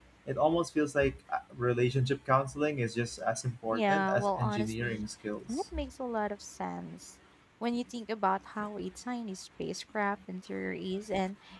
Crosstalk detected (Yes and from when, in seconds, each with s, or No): Yes, from 3.7 s